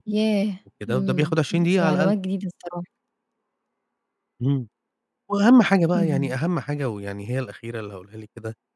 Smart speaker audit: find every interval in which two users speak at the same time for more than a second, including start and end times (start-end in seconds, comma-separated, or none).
0.9-2.1